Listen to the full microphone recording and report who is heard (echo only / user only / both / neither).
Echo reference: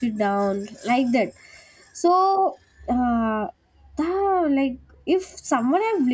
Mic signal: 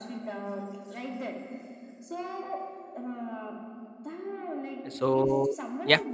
both